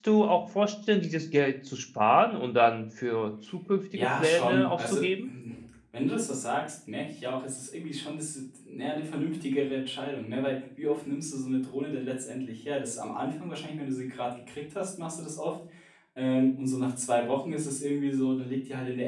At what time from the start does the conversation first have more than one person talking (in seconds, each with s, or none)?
3.9 s